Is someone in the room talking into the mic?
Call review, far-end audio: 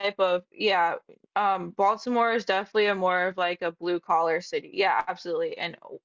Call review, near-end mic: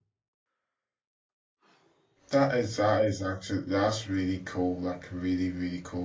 Yes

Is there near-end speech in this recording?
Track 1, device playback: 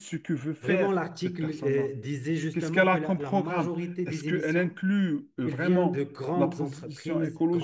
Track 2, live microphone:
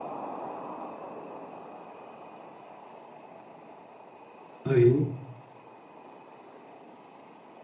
Yes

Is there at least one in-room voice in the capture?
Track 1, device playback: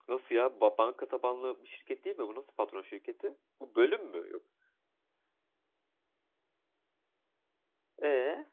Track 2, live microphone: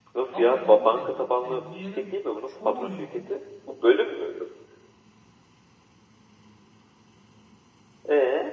Yes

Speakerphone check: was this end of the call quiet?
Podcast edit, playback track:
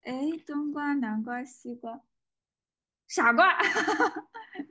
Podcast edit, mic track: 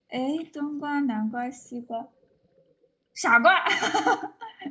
Yes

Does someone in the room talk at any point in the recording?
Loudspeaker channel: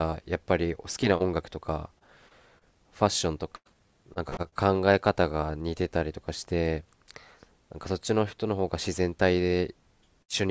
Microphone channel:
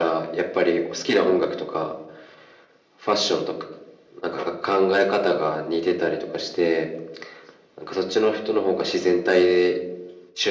No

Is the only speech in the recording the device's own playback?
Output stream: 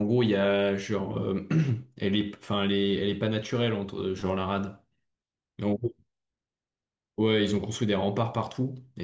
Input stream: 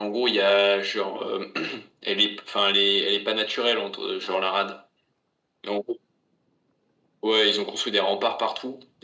Yes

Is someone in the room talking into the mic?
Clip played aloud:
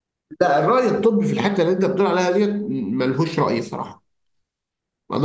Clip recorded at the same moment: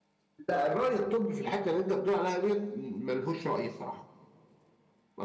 No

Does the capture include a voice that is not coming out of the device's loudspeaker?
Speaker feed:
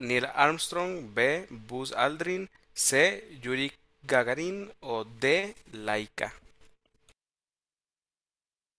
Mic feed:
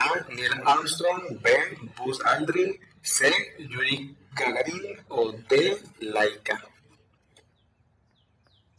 No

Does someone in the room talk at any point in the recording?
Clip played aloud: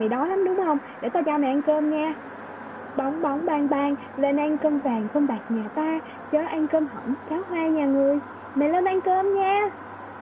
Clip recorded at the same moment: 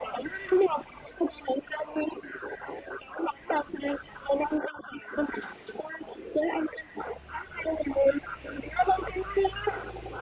No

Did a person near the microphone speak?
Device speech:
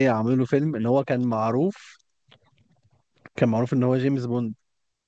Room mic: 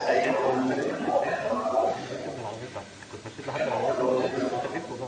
Yes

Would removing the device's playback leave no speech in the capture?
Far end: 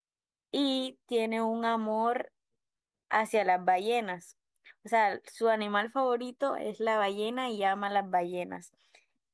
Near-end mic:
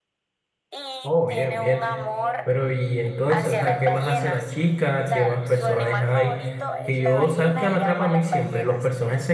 No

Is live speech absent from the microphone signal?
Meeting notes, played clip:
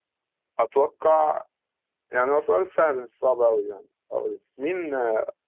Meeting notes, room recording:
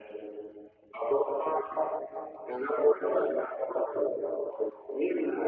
Yes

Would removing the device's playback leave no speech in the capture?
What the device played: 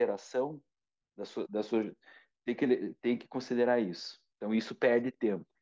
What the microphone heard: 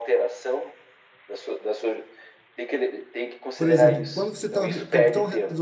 No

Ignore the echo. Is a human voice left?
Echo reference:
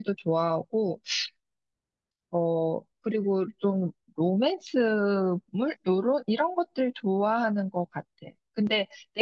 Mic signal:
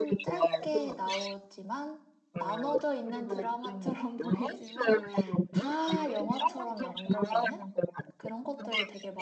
Yes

